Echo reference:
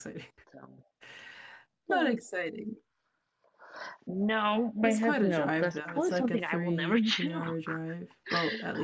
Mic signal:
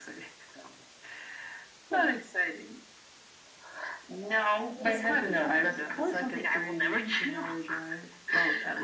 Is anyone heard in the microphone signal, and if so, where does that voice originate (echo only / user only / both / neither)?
both